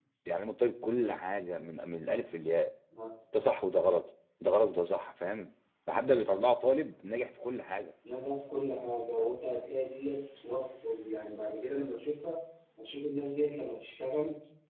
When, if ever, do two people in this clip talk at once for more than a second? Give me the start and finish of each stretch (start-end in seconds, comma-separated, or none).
none